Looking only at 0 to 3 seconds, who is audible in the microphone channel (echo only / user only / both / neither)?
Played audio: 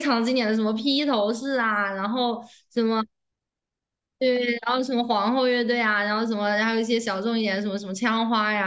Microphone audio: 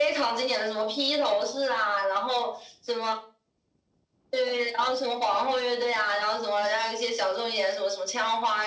echo only